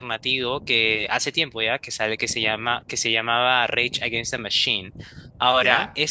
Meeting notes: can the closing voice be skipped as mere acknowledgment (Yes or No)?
Yes